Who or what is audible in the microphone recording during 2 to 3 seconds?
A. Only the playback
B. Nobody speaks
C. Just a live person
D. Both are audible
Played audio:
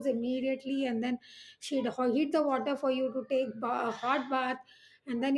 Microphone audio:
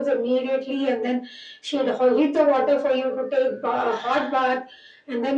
A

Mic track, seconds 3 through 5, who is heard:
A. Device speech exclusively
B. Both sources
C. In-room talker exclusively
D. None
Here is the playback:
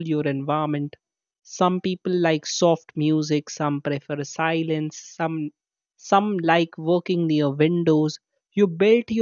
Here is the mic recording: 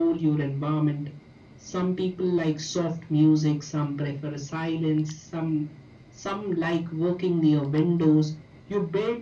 A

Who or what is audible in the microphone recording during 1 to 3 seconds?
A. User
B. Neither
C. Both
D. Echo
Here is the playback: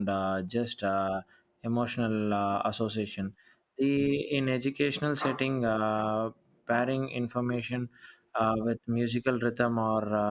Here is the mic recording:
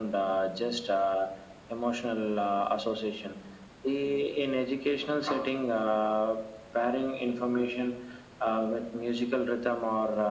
D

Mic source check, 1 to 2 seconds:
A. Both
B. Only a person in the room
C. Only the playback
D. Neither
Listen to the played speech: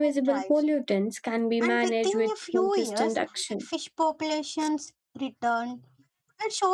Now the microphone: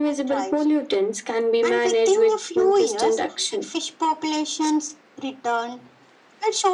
C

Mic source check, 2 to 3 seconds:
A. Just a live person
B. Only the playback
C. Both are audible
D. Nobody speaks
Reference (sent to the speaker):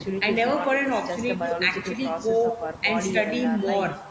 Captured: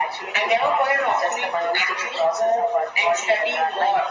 B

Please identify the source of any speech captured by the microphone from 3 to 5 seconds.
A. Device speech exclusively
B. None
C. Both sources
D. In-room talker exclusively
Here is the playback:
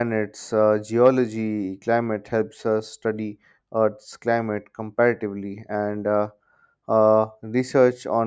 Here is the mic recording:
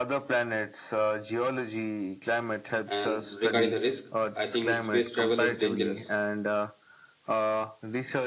C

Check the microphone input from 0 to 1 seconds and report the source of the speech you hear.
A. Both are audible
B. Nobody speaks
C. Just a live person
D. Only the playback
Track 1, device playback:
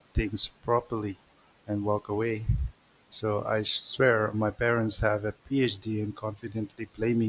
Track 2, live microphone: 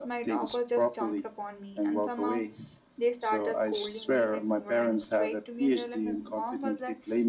A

